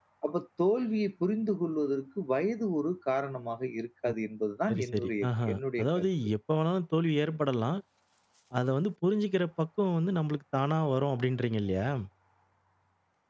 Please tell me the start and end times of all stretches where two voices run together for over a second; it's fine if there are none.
4.7-6.1

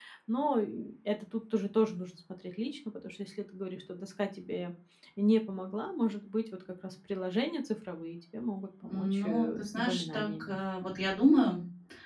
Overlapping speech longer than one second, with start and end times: 8.8-10.6

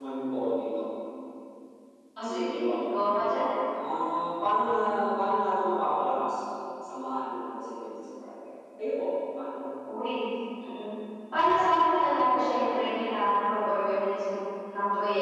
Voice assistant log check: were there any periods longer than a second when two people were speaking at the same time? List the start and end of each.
none

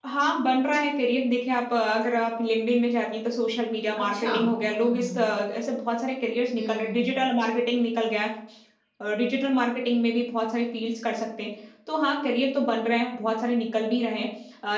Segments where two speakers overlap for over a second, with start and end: 4.0-5.2

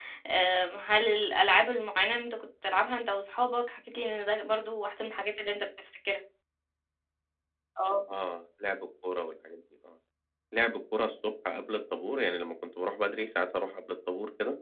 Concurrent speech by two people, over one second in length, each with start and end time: none

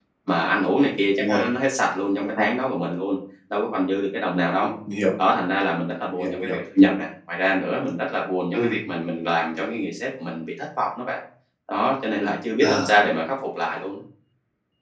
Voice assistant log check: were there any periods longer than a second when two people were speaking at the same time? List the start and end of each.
none

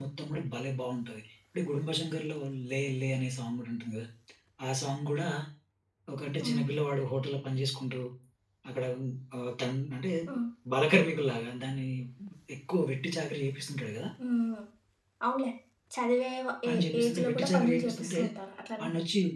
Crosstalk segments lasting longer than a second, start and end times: 16.7-18.2

